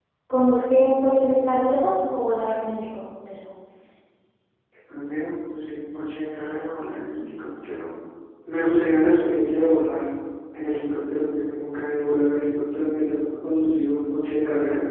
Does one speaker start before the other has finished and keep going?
No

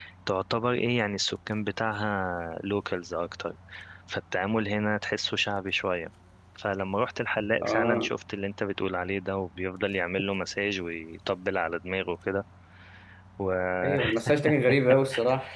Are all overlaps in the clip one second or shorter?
Yes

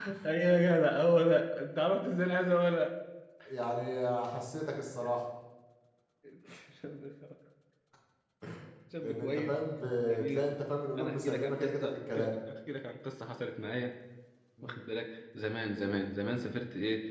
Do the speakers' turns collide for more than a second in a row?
Yes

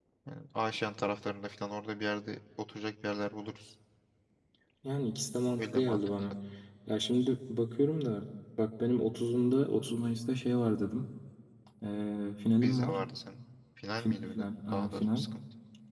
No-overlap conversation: No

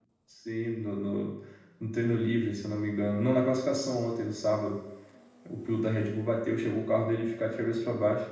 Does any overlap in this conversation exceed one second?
No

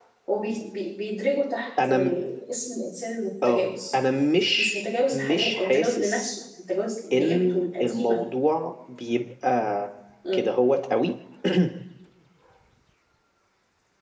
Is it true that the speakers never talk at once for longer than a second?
No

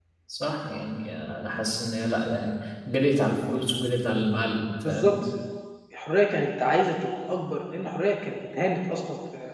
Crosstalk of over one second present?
No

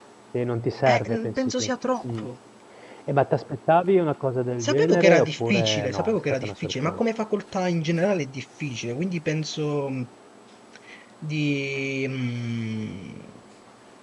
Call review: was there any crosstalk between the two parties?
Yes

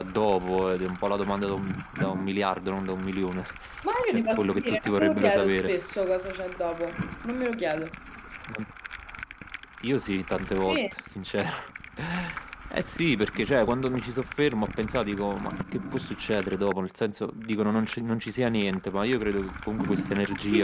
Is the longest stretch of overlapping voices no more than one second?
No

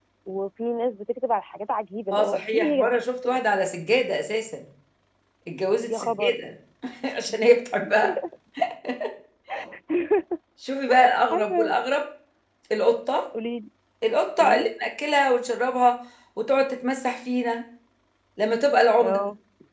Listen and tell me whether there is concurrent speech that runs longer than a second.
Yes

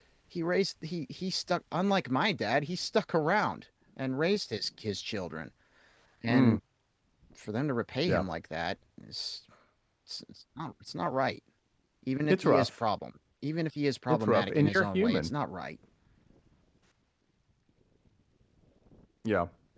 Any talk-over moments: Yes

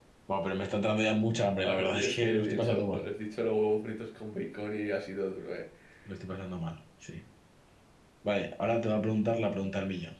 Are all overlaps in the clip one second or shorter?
No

